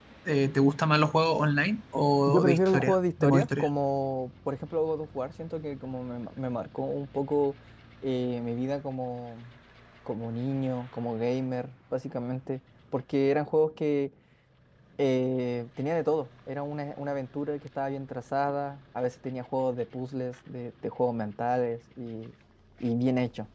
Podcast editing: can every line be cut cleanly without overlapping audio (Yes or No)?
No